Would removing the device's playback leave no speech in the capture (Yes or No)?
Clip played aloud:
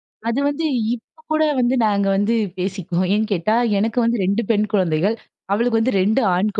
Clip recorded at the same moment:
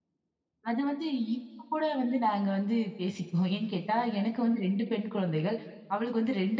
Yes